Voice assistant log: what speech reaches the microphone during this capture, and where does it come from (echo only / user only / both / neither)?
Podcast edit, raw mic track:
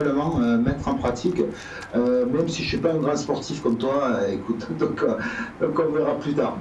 echo only